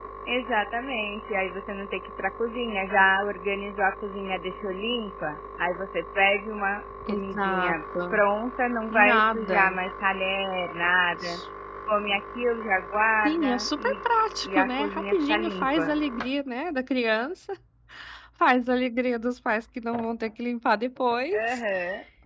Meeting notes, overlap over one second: present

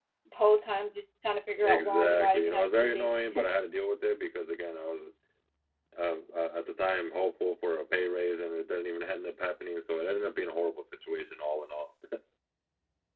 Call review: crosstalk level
present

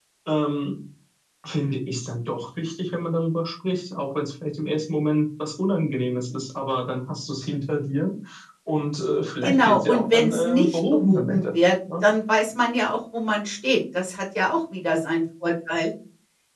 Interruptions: present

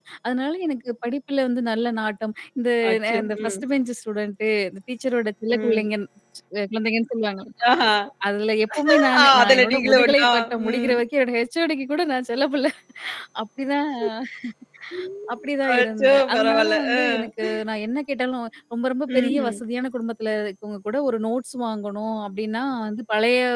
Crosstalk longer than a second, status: present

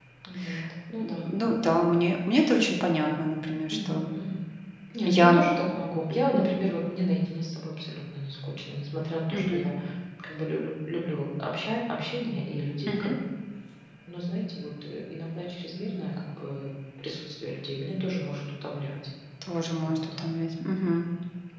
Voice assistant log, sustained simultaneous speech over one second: none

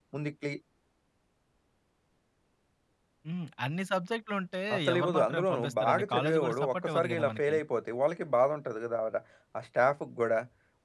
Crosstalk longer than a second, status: present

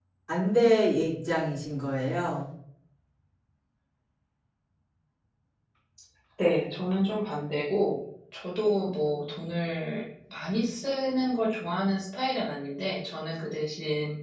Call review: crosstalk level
none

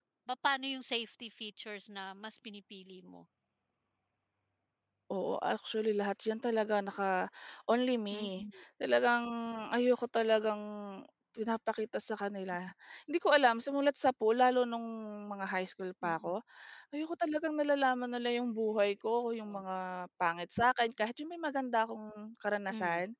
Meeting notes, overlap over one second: none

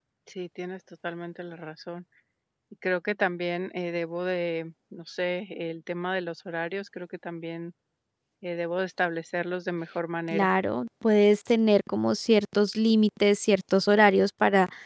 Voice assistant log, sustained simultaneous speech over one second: none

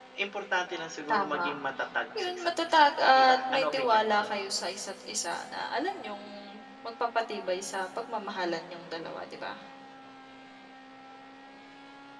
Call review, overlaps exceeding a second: present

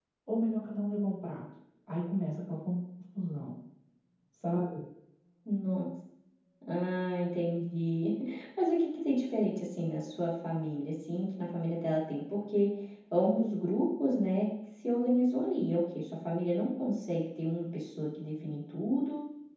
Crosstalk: none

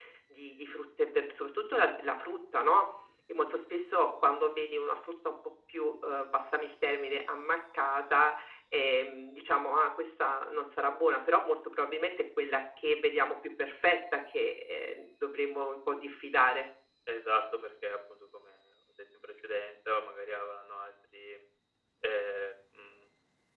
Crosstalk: none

